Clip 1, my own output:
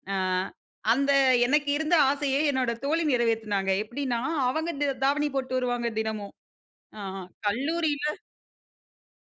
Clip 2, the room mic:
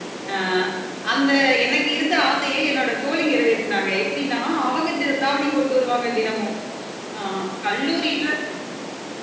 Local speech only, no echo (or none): none